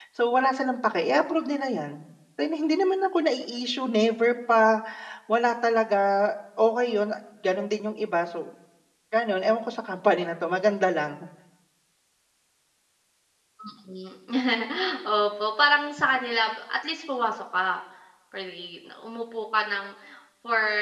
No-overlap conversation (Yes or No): Yes